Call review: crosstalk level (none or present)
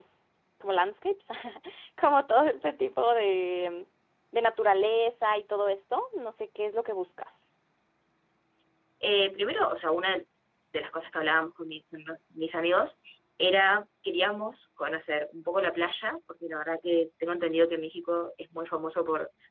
none